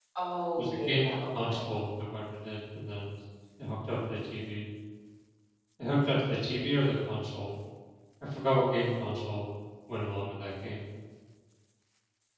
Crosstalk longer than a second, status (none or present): present